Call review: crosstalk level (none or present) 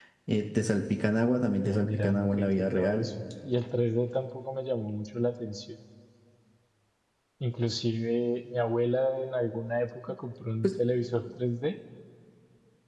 present